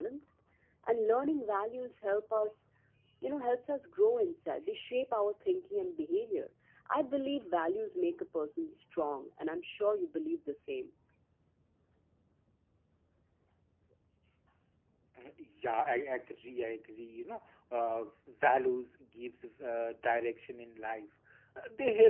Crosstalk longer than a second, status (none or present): none